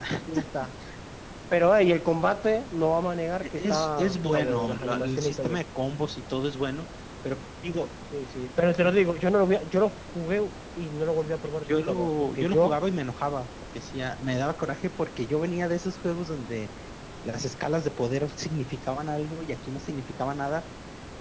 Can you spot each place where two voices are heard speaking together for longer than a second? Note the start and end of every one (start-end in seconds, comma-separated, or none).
3.4-5.6, 11.6-12.8